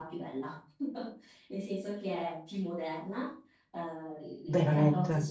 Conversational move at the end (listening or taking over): listening